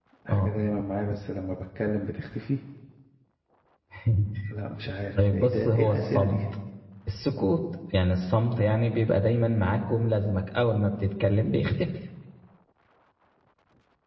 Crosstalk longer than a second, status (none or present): present